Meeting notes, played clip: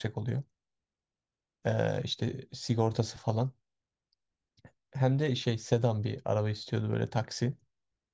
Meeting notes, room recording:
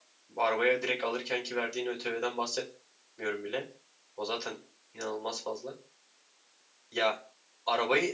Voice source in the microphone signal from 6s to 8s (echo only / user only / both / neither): user only